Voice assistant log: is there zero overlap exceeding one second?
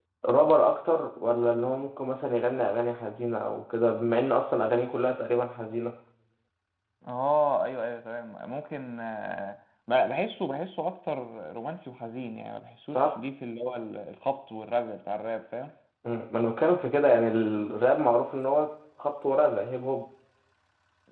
Yes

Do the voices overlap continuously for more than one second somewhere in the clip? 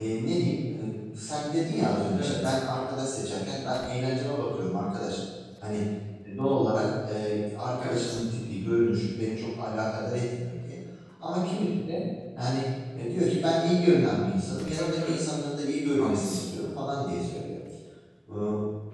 No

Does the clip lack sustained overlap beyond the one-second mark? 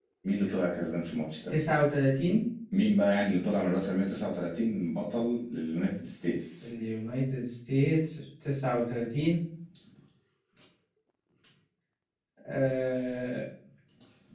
Yes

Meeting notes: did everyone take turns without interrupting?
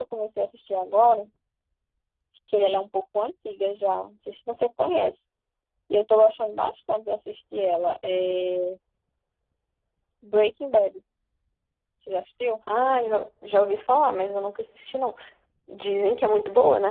Yes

